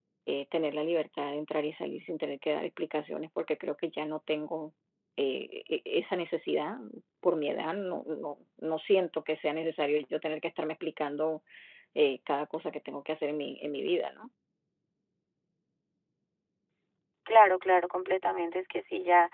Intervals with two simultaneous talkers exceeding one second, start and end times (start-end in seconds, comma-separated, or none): none